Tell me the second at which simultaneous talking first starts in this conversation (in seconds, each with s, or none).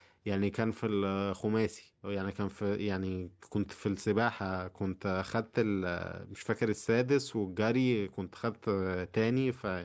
none